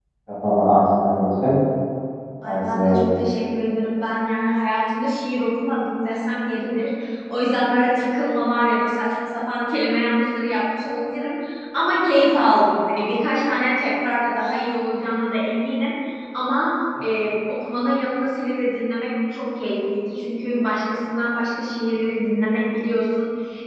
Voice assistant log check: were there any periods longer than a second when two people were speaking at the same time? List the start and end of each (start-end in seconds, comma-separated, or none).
none